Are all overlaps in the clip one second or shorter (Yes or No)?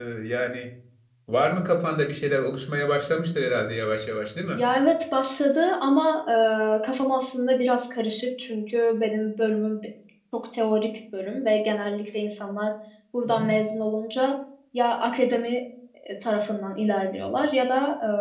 Yes